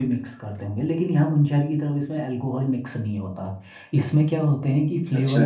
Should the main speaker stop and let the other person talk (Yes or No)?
No